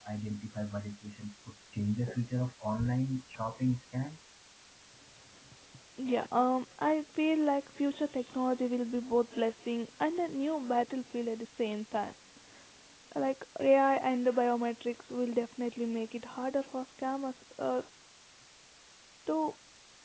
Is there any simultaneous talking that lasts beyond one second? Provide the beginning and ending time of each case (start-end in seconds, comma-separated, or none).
none